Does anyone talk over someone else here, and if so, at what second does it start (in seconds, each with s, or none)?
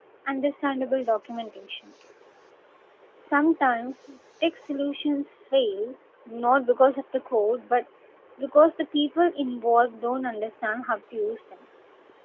none